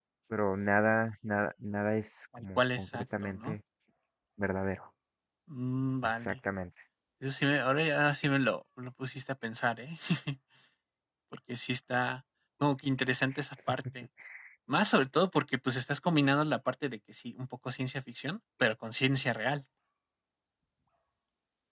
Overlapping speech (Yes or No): Yes